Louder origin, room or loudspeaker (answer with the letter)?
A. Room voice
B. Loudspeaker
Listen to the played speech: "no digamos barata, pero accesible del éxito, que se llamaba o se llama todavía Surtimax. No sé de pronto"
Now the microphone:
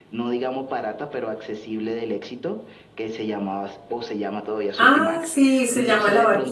A